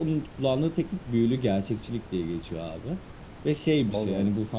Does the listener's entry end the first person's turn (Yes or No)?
No